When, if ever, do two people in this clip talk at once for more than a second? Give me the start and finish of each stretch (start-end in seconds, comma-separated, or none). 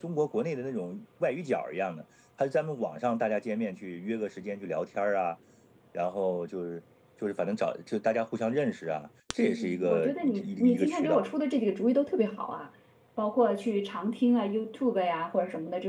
9.4-11.2